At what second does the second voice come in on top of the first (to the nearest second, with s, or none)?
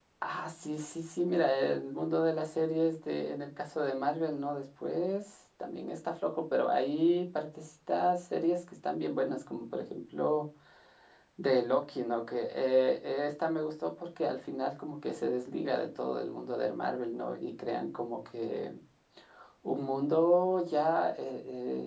none